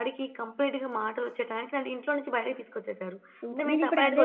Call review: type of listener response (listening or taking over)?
taking over